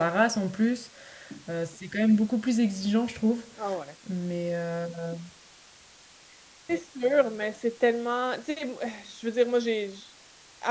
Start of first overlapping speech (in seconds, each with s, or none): none